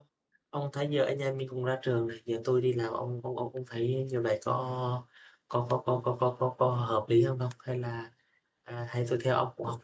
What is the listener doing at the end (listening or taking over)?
listening